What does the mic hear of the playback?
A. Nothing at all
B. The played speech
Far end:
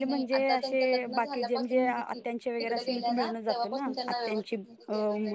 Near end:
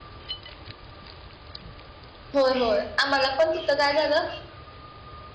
A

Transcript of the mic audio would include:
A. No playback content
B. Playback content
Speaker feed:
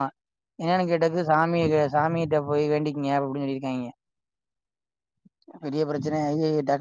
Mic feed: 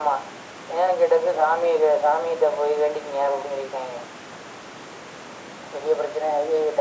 B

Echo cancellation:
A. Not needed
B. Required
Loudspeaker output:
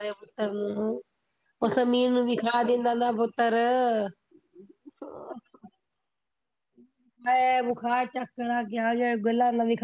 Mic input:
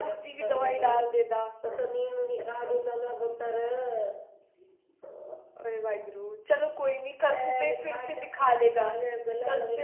B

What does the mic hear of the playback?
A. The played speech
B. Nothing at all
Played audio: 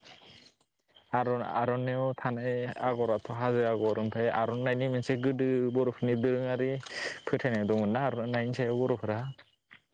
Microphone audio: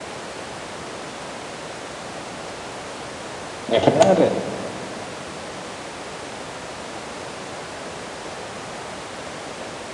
B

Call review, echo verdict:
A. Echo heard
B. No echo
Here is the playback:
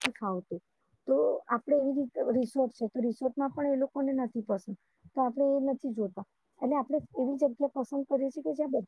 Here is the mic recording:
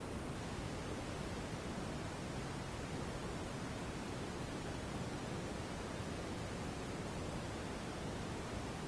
B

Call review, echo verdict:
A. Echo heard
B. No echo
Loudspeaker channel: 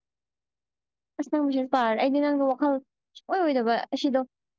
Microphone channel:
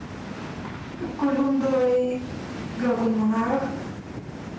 B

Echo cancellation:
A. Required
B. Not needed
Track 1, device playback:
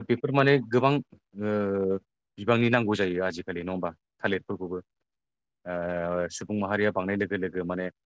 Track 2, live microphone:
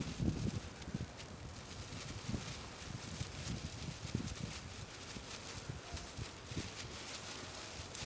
B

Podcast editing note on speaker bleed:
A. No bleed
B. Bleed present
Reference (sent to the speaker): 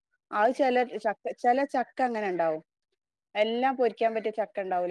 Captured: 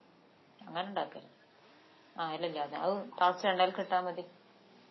A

